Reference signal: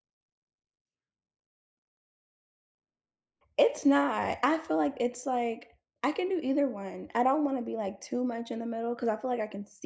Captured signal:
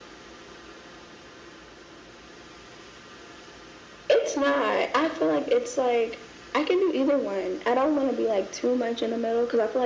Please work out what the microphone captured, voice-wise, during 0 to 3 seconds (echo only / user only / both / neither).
neither